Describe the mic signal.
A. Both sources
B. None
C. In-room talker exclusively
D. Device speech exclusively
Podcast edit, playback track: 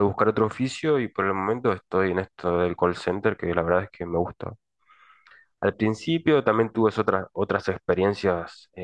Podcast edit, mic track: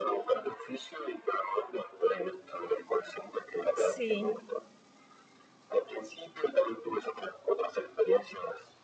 A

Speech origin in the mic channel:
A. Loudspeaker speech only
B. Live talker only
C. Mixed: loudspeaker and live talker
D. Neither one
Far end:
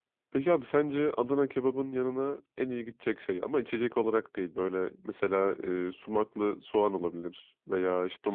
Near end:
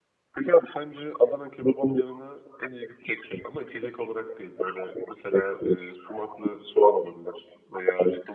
A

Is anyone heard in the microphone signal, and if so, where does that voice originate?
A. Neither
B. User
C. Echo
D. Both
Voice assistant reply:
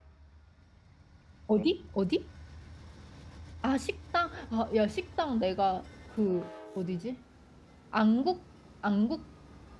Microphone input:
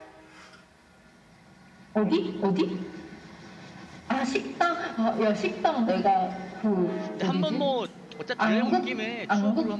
D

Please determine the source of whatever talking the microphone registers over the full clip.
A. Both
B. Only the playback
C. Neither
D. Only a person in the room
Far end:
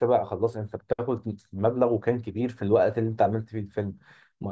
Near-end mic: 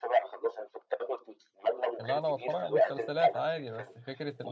A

